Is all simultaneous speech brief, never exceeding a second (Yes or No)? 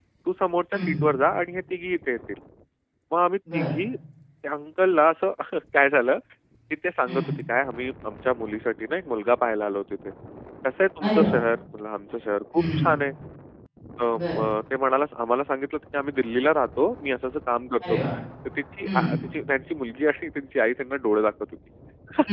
Yes